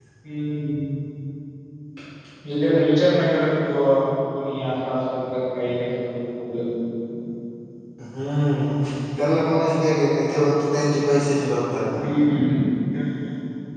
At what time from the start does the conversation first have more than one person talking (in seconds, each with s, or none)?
none